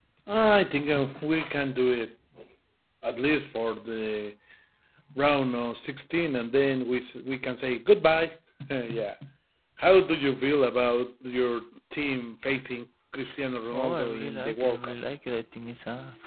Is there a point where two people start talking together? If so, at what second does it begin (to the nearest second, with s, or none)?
14 s